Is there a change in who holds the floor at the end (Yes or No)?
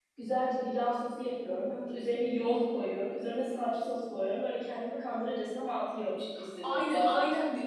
Yes